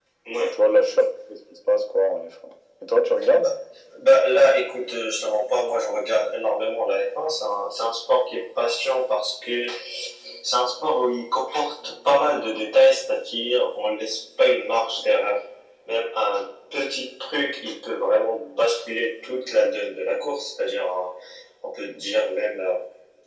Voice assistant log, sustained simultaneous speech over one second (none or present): none